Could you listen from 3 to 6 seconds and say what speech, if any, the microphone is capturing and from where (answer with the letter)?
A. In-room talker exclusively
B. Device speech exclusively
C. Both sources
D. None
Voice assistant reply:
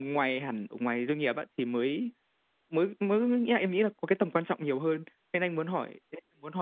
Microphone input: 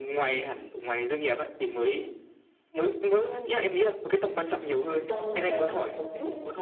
C